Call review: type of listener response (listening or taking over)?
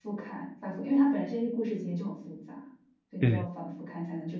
listening